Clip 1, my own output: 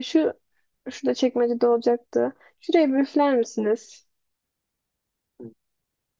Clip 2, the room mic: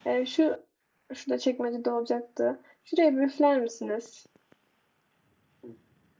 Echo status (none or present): present